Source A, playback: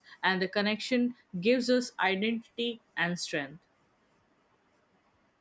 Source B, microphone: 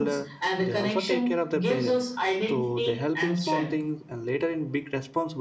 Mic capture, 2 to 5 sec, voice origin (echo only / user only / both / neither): both